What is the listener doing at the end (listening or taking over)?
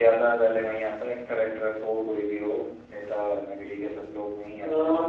taking over